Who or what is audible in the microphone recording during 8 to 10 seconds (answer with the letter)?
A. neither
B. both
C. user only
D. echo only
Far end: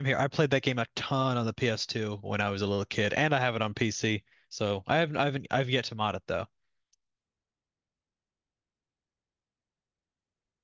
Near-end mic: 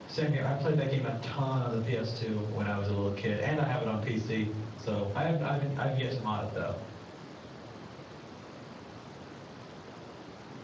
A